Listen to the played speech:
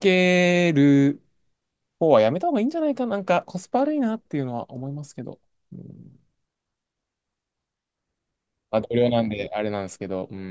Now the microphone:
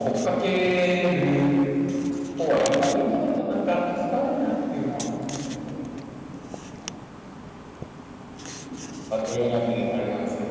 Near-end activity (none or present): none